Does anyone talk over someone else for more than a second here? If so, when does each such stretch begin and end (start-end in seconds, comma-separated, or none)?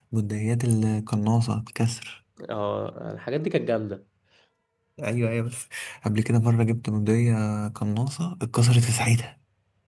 none